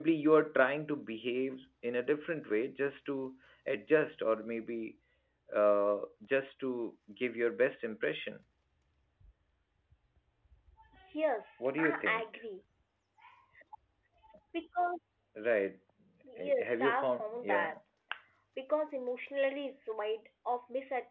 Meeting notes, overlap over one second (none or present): present